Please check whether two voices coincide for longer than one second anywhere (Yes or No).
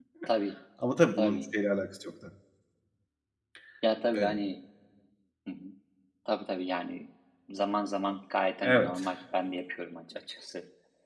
No